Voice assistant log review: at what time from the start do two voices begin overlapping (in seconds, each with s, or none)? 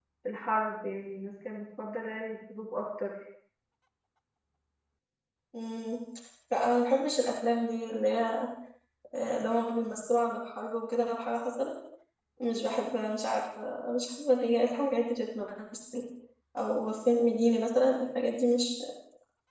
none